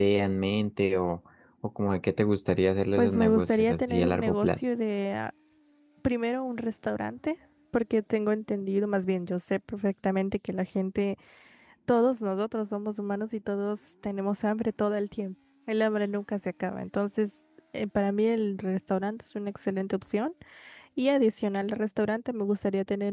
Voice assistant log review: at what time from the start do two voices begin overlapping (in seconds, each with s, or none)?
3.0 s